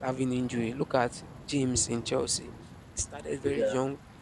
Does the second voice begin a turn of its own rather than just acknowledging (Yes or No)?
No